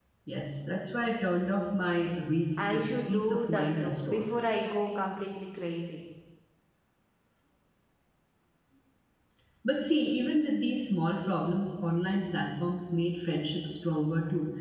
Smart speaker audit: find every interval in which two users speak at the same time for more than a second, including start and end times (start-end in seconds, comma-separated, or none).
2.6-4.2